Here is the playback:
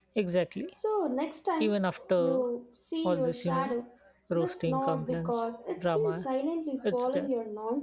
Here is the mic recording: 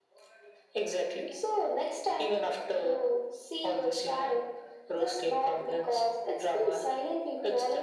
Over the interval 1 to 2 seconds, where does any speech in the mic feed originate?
echo only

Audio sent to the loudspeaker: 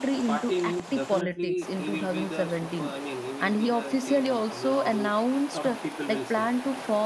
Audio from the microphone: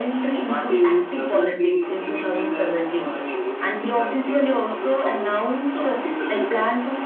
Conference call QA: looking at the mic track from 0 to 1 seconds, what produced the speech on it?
echo only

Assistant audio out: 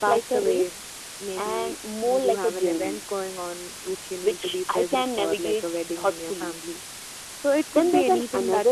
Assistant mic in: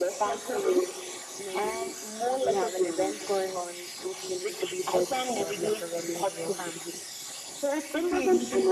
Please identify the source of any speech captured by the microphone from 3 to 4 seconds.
echo only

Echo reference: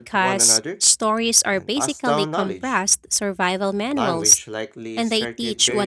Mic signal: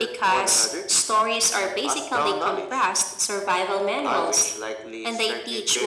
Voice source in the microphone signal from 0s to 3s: echo only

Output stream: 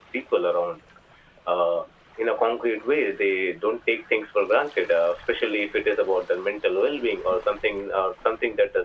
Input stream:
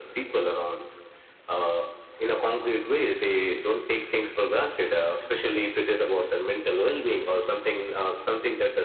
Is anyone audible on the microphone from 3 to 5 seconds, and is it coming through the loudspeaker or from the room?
echo only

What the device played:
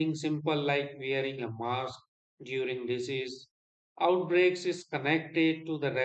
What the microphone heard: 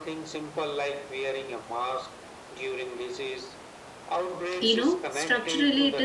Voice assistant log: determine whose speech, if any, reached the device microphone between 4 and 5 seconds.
both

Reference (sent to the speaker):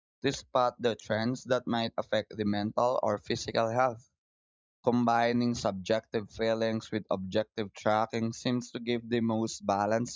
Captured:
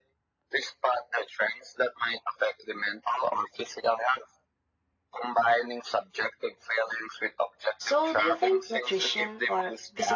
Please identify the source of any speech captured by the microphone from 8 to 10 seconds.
both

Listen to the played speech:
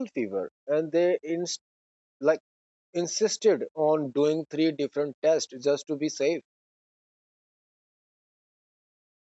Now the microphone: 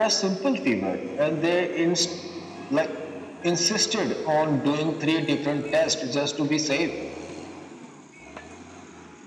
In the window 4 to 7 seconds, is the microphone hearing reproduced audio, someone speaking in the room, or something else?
echo only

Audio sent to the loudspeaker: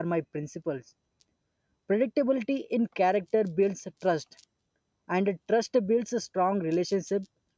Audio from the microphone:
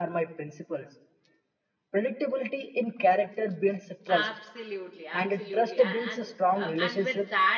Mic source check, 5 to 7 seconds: both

